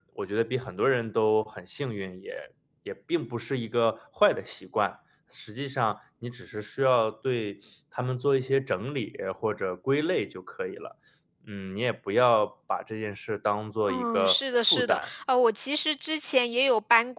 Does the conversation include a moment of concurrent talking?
Yes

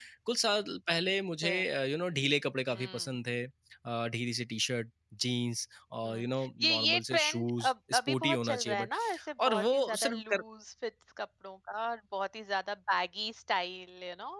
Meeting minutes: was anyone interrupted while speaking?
Yes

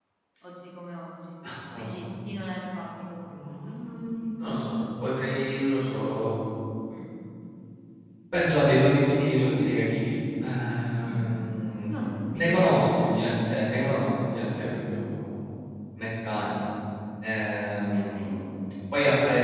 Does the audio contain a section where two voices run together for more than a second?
Yes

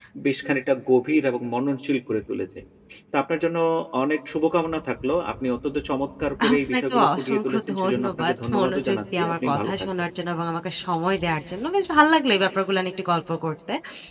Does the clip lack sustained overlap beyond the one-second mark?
No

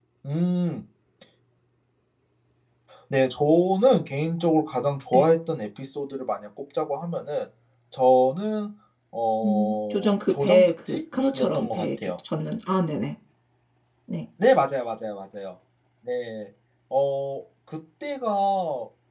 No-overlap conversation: No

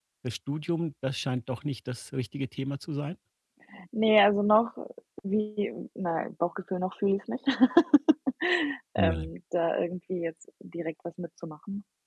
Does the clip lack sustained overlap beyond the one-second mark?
Yes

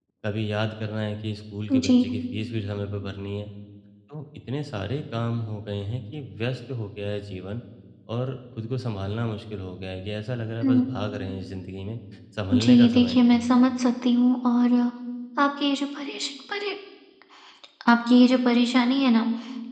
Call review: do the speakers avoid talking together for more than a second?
No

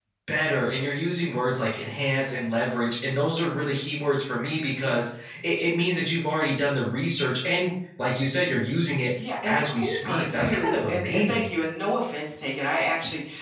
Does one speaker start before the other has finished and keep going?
Yes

